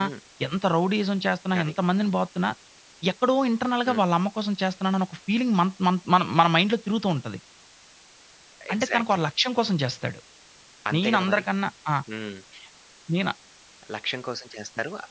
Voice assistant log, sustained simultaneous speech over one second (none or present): none